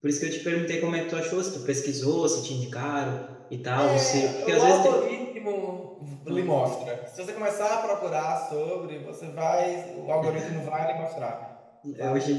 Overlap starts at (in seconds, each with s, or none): 3.8 s